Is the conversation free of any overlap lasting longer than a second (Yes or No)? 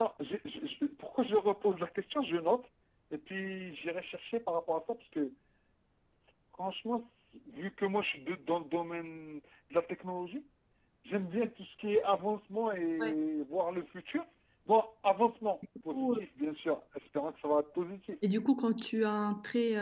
Yes